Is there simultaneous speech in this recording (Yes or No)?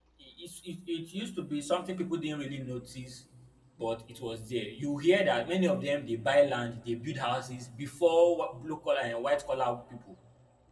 No